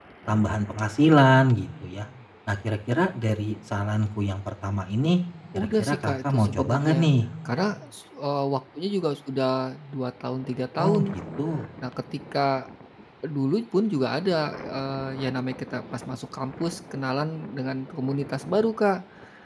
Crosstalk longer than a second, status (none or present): present